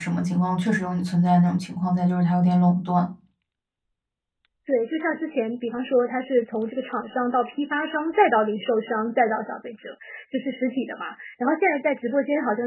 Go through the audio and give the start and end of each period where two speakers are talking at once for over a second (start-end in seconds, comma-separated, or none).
none